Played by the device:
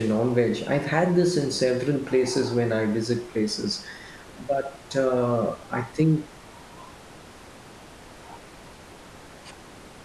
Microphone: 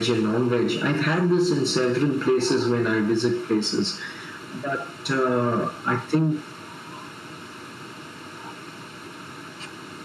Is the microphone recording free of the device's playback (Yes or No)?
No